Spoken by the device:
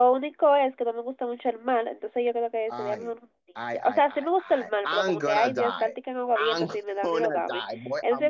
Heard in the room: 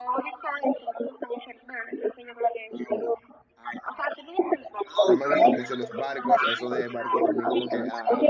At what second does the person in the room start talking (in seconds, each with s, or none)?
5.0 s